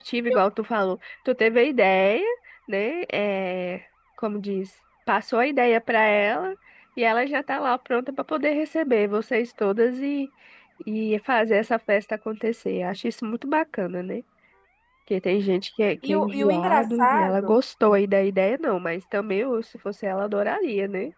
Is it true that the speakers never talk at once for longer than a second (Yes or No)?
No